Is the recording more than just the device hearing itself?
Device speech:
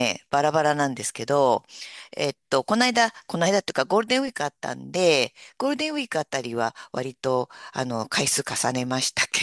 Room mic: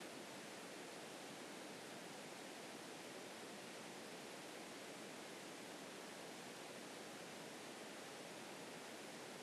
No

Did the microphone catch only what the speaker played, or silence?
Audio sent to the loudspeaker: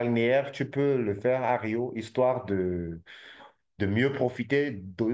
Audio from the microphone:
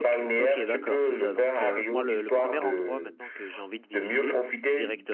No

